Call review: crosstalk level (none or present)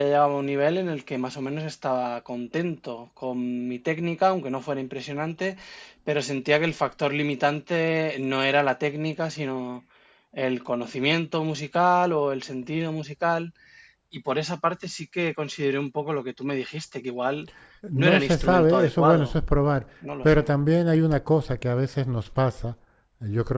present